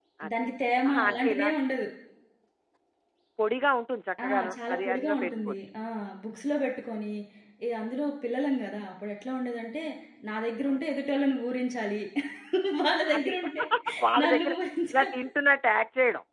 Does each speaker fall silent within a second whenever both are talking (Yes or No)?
No